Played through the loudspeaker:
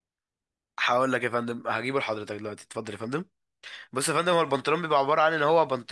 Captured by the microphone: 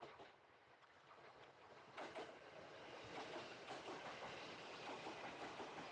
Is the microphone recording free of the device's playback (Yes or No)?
Yes